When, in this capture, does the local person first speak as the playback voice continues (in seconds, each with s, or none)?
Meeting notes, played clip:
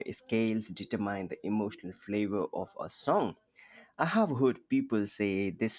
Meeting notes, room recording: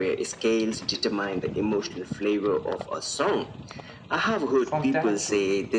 4.6 s